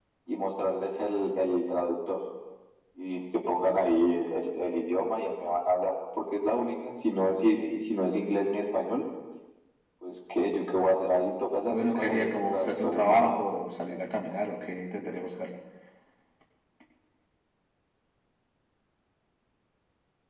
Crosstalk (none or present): present